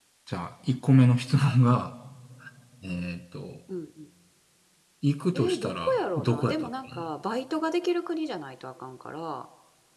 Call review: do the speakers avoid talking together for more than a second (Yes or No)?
No